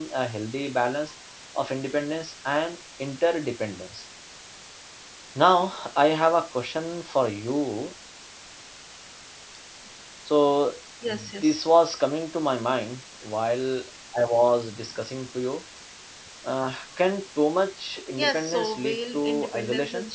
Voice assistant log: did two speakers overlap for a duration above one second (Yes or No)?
Yes